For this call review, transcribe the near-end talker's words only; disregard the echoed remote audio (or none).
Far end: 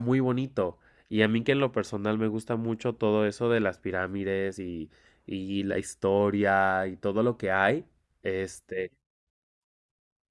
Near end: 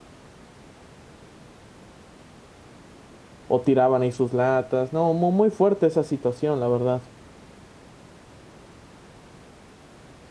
o tiraban ahí sus latas. No, muy, muy fuerte esa situación, la verdad.